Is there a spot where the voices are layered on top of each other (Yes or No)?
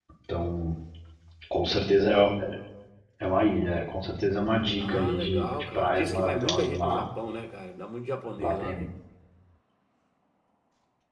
Yes